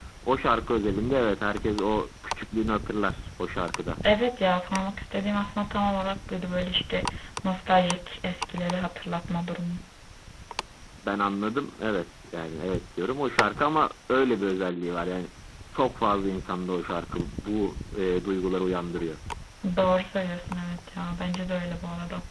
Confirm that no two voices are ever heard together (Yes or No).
Yes